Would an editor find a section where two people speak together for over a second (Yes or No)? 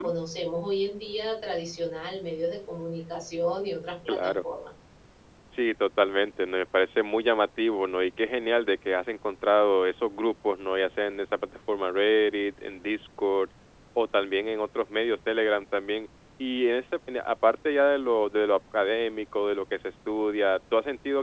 No